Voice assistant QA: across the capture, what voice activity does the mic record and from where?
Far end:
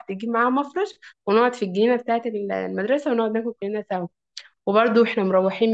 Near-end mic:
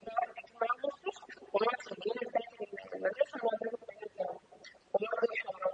echo only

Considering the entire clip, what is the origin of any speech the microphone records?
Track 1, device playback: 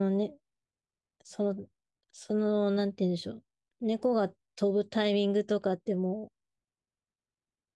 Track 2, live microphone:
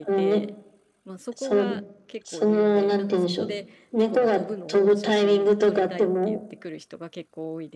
both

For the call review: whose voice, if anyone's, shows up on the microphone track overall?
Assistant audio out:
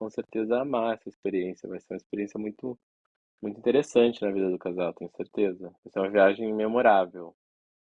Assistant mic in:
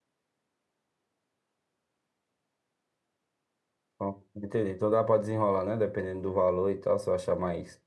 user only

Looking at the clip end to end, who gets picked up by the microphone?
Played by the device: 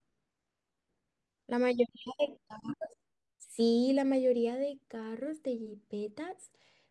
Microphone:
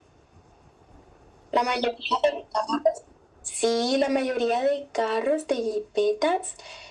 echo only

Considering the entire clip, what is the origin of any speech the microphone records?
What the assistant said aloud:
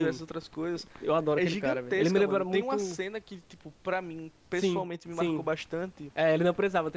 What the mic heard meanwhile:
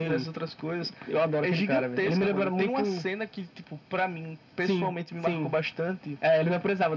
echo only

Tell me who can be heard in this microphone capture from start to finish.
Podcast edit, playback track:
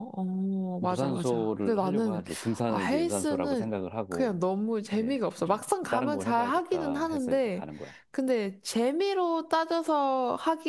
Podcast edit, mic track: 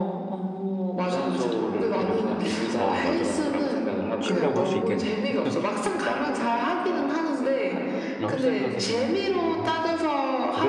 both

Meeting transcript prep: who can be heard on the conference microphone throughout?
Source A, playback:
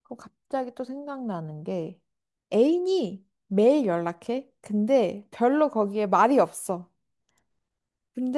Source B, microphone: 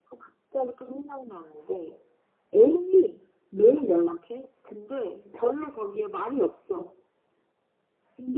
echo only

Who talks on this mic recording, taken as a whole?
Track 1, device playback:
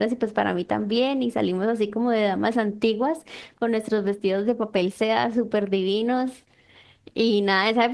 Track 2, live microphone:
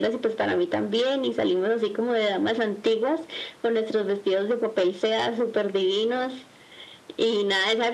echo only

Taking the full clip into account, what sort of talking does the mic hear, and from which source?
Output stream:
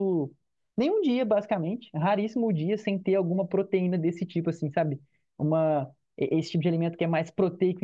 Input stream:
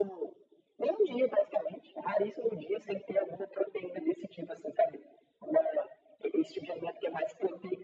echo only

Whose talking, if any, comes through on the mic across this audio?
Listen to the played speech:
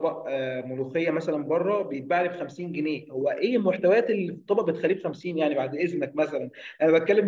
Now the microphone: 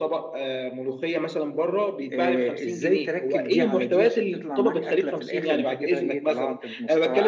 both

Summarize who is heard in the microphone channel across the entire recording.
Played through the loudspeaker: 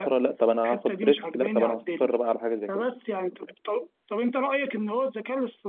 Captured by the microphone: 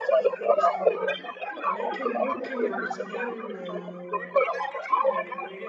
both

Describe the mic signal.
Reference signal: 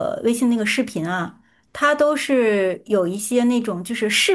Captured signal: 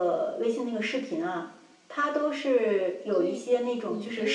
both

